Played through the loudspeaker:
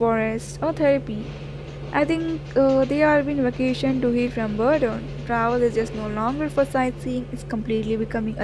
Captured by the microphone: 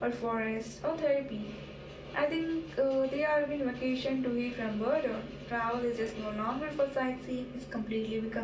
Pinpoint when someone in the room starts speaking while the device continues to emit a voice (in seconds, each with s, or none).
none